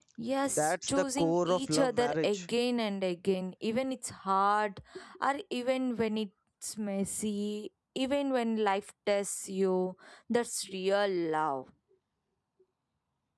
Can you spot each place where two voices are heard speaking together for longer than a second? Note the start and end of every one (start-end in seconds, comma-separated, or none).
0.6-2.4